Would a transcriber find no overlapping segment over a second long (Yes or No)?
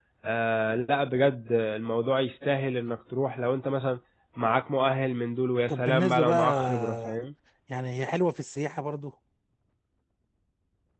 No